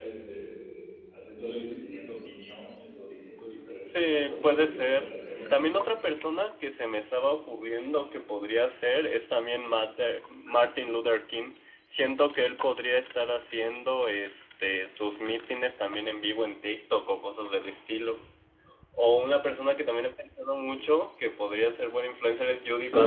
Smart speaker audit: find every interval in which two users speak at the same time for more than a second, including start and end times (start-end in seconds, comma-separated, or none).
3.8-5.0